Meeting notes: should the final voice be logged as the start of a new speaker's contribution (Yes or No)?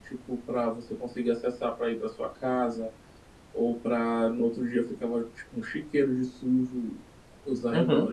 No